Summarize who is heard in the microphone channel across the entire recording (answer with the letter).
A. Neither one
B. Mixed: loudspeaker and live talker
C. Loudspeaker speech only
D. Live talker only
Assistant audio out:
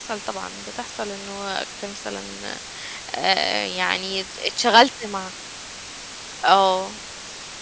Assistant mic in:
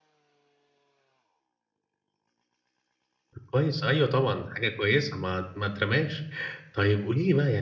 D